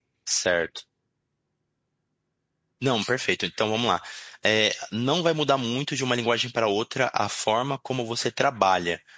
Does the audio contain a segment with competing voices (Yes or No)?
No